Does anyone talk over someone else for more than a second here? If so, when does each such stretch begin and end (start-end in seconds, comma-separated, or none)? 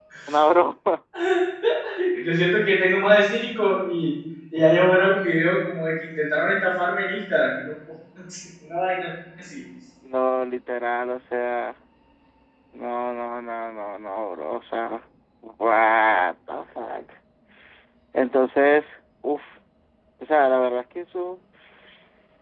none